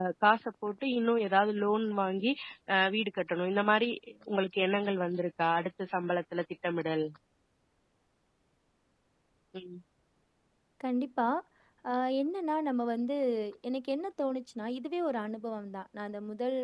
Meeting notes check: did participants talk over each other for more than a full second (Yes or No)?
No